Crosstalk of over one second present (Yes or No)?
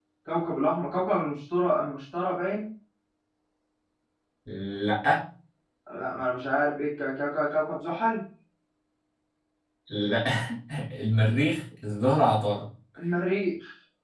No